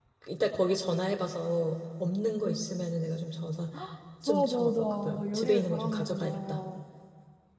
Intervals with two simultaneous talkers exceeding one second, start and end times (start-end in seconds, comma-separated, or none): 4.2-6.6